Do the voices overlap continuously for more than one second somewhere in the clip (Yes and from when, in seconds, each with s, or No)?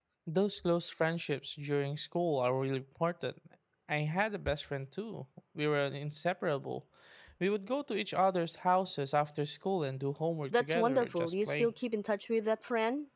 Yes, from 10.5 s